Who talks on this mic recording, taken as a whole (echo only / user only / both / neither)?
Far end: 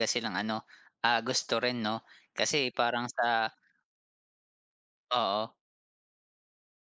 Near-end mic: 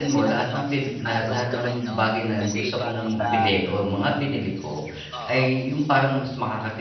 both